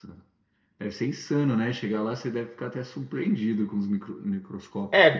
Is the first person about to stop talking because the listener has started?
Yes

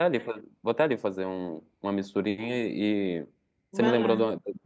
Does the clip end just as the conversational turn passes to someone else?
No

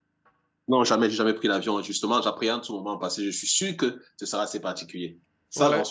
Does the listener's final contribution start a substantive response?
Yes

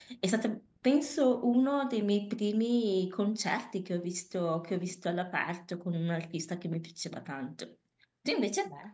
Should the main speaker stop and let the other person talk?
No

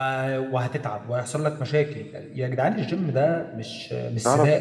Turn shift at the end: Yes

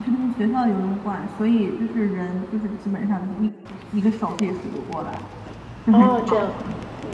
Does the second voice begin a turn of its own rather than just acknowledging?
Yes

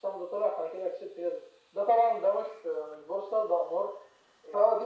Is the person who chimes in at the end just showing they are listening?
Yes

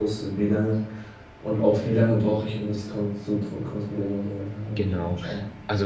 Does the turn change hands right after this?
Yes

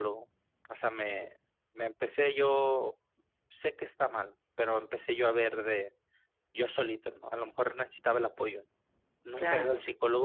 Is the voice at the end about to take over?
No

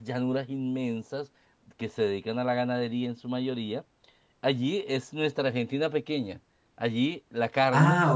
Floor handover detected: No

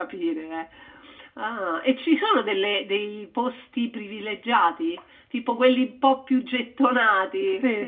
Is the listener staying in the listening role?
No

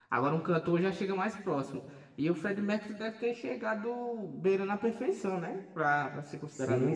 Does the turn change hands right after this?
Yes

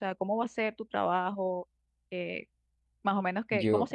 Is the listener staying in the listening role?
Yes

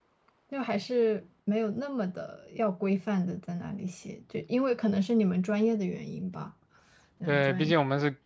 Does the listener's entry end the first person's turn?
Yes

